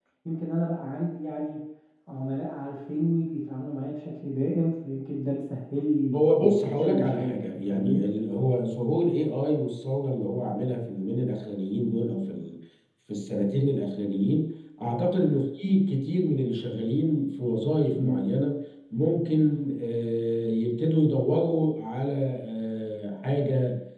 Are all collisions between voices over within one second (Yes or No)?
No